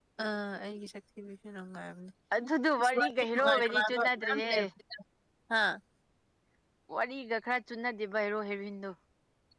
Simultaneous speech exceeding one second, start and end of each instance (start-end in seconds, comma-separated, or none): 2.8-4.5